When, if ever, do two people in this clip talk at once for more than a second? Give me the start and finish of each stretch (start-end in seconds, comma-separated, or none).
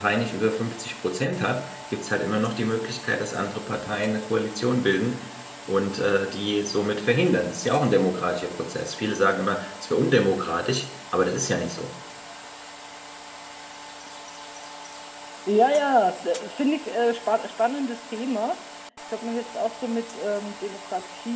none